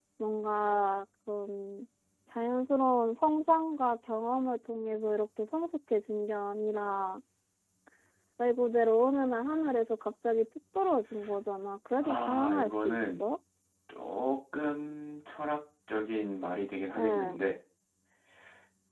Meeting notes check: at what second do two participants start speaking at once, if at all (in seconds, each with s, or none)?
12.0 s